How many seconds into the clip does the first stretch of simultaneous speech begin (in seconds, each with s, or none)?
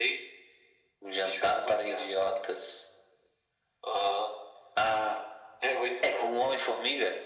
1.1 s